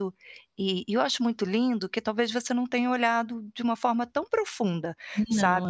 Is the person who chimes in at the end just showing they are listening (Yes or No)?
Yes